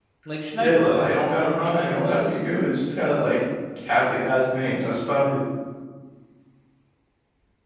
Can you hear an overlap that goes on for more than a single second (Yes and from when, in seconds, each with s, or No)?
Yes, from 0.5 s